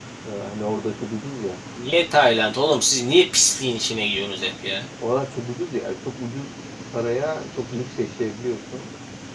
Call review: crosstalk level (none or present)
none